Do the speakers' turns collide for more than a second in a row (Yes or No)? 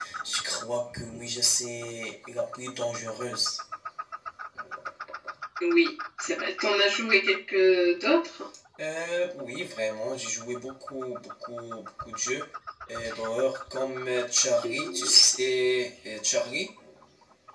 No